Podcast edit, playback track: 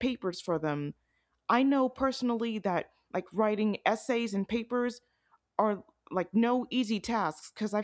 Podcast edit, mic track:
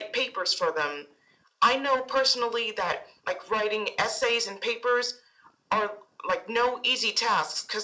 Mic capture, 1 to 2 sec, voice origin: echo only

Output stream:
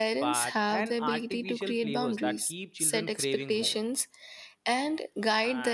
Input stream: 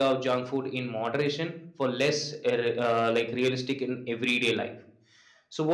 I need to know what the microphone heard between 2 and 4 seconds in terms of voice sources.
user only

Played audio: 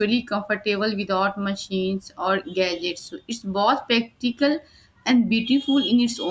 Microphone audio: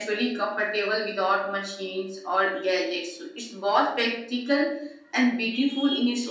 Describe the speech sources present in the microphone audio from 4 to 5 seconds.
echo only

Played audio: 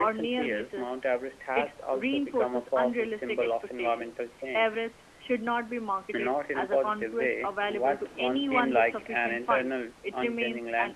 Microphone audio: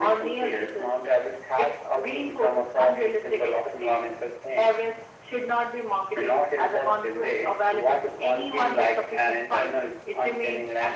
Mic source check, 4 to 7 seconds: echo only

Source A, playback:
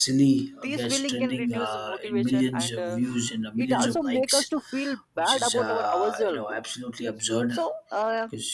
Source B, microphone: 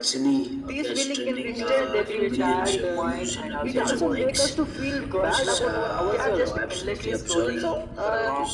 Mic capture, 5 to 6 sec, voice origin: both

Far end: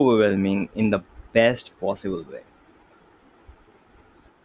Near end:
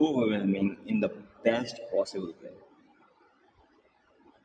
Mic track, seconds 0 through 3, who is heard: echo only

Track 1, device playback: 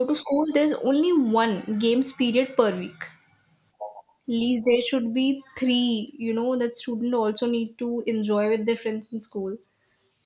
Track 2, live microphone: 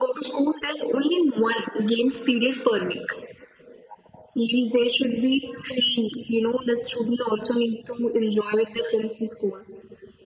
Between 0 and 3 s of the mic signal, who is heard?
echo only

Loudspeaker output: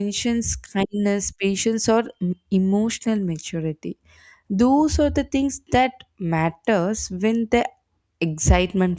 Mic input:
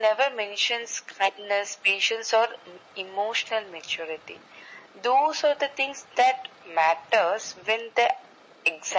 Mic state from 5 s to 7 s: echo only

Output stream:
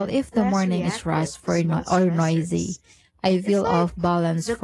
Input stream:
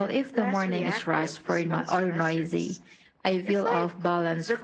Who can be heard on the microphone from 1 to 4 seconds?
echo only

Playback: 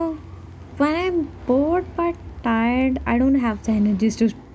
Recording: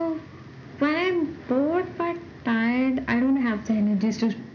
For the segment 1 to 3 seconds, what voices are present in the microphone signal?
echo only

